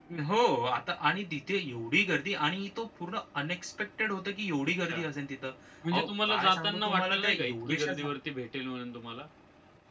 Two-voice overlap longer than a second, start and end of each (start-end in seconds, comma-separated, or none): 5.9-8.0